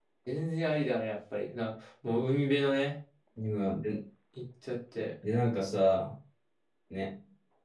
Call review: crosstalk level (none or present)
none